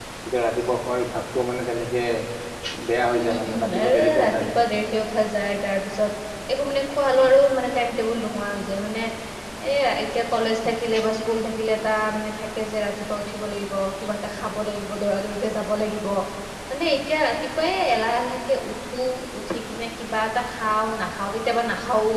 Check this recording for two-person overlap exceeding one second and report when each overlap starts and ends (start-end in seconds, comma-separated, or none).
3.2-4.8